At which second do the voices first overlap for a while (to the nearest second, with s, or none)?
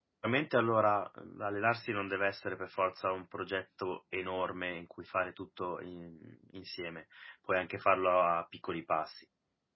none